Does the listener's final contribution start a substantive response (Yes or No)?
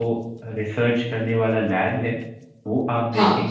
No